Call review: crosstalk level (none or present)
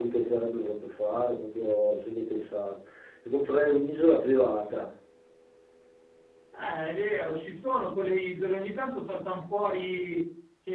none